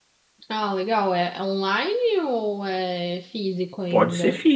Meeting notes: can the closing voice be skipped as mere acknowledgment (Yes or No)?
No